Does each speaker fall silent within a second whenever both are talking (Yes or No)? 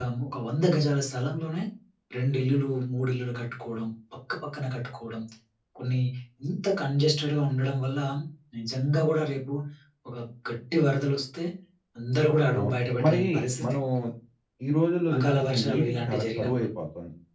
No